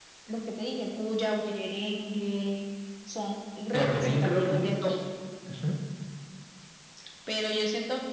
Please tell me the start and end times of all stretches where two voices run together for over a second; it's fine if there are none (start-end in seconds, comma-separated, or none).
3.7-5.0